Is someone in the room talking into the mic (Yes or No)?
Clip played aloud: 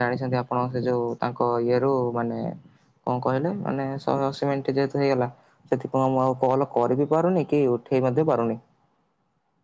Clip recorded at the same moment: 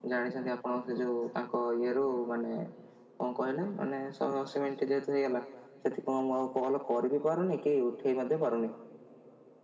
No